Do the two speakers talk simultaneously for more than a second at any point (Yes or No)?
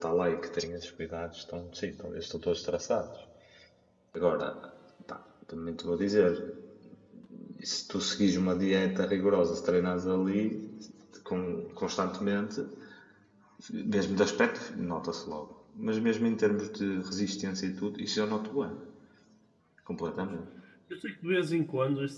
No